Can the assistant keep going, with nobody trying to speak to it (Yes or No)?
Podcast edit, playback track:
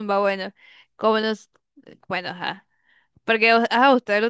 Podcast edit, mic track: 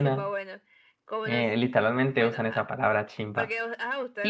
No